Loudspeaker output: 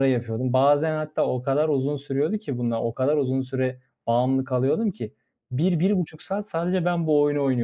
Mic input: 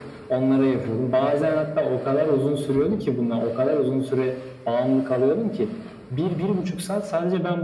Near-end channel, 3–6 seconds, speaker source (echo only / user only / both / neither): echo only